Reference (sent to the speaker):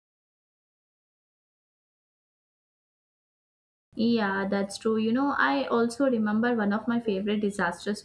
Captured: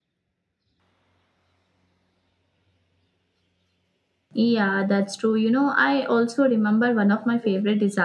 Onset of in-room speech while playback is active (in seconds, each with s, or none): none